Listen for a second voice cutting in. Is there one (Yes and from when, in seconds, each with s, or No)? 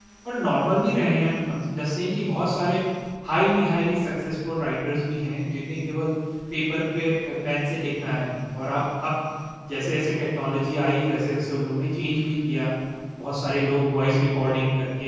No